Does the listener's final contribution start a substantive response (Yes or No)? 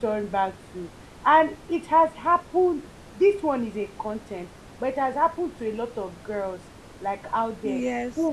No